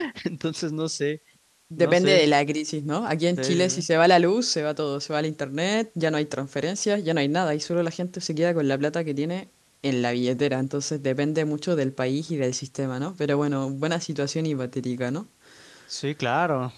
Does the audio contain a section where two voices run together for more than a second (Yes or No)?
No